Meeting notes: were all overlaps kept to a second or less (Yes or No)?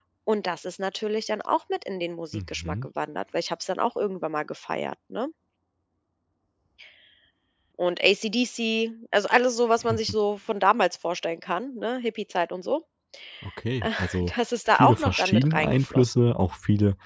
No